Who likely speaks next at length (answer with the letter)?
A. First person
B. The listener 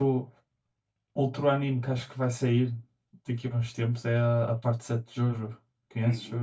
B